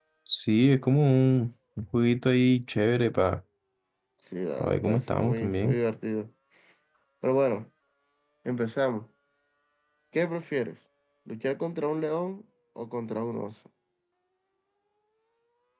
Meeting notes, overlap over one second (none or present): present